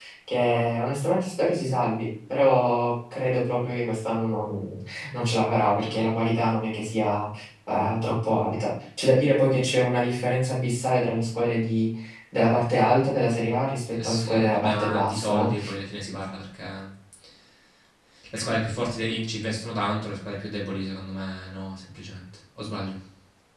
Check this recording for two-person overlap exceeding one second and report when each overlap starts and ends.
13.9-15.5

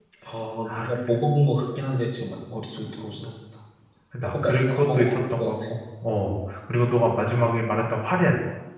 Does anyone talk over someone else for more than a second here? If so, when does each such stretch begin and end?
4.2-5.6

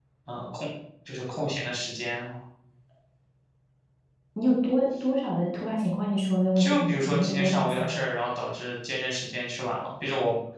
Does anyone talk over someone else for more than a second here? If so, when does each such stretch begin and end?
6.6-8.0

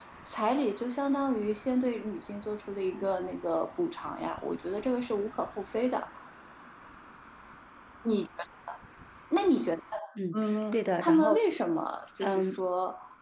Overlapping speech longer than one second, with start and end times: 10.3-11.6

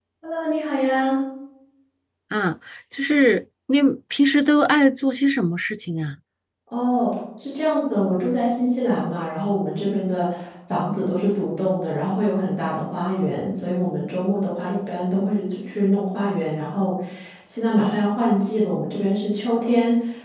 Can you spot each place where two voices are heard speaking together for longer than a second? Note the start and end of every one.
none

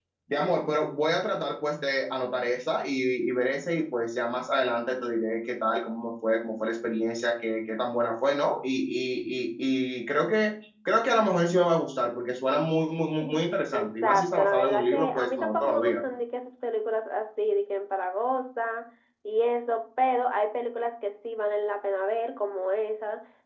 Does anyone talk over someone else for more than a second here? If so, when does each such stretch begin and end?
13.7-16.0

